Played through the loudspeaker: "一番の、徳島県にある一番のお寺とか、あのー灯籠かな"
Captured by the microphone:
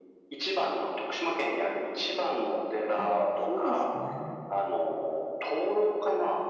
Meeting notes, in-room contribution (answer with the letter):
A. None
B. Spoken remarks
B